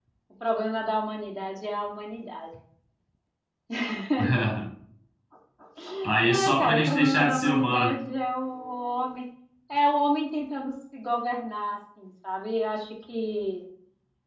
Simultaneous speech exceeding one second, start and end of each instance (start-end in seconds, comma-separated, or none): 6.3-7.9